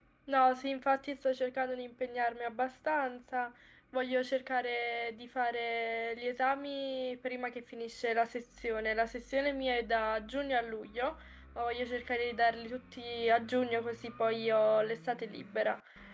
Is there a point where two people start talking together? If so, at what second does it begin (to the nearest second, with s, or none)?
none